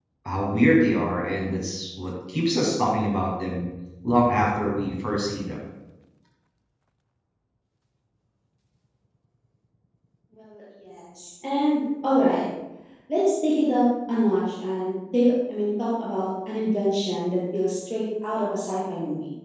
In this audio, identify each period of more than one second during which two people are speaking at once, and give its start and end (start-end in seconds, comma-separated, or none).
none